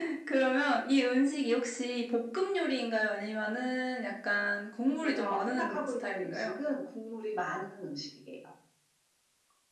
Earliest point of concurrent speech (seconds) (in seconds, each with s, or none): 5.0 s